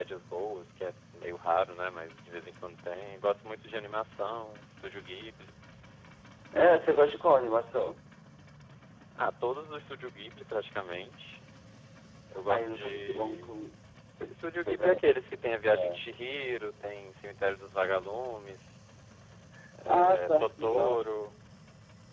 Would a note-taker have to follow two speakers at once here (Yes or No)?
Yes